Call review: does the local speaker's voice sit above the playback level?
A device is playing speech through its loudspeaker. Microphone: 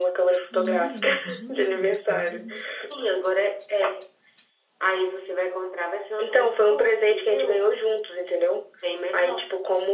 No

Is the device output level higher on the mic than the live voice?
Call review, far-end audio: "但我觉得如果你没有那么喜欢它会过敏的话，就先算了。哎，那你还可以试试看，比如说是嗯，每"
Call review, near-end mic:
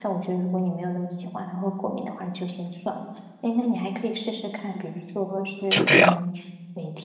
No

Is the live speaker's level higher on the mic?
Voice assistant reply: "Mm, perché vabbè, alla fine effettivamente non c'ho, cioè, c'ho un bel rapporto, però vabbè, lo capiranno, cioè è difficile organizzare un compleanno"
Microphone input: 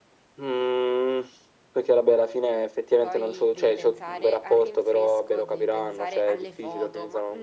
No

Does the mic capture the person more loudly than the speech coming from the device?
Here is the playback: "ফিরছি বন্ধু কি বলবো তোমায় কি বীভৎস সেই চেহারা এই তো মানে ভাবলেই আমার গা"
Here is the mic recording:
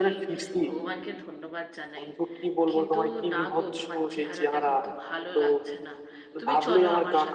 No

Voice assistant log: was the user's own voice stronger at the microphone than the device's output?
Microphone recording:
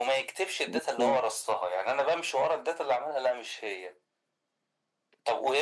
No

